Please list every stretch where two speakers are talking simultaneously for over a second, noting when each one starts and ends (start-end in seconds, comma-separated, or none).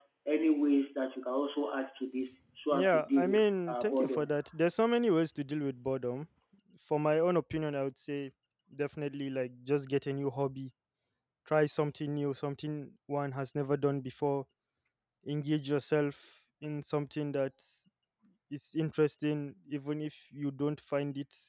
2.7-4.3